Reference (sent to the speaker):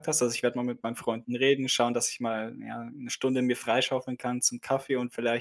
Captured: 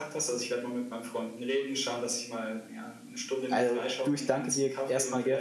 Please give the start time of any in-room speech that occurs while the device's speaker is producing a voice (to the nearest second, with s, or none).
3 s